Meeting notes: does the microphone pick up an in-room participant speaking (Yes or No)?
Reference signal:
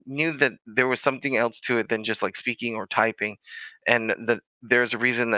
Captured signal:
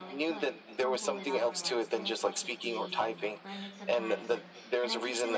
Yes